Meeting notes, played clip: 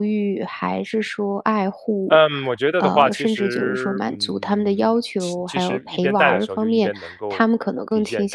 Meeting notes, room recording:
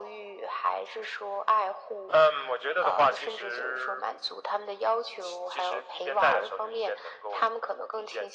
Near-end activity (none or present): none